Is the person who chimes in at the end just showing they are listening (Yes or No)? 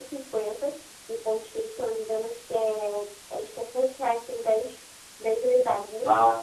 No